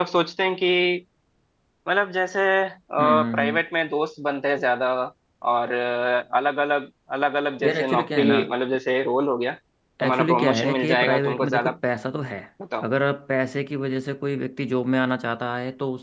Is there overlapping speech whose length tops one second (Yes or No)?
Yes